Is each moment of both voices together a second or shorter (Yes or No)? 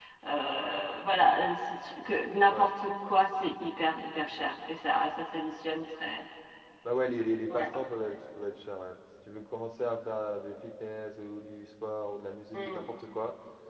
Yes